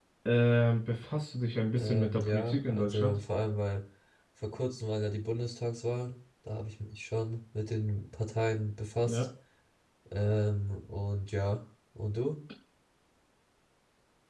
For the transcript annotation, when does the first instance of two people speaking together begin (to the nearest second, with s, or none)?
2 s